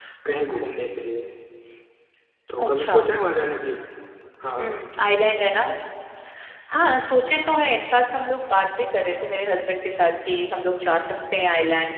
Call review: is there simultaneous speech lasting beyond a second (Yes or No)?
No